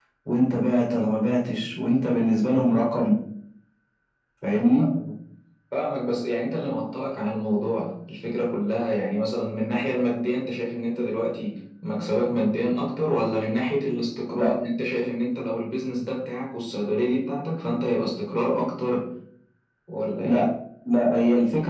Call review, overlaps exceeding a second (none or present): none